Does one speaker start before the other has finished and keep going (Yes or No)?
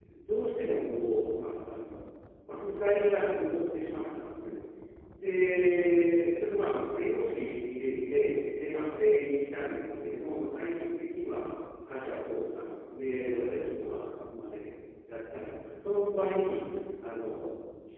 No